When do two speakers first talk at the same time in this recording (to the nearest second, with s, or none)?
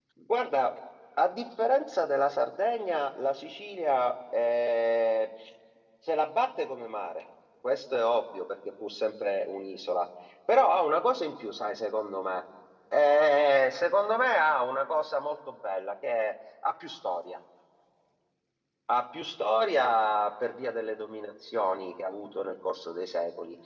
none